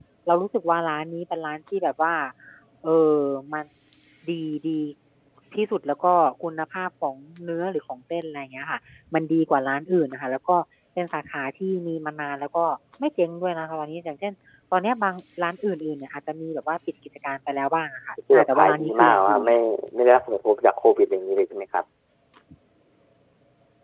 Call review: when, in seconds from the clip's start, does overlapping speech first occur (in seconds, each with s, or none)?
18.3 s